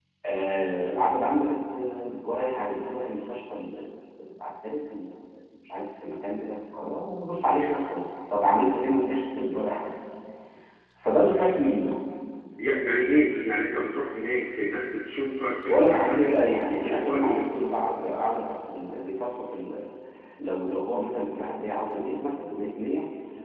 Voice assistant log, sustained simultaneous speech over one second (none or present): present